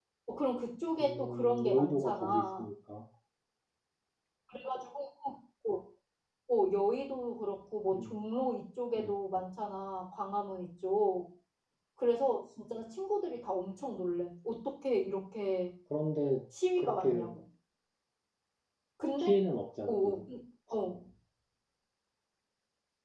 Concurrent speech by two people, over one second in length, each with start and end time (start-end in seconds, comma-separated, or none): 1.0-2.7